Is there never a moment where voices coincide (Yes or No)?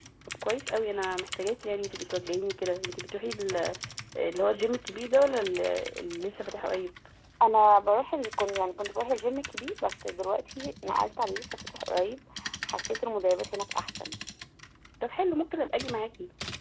Yes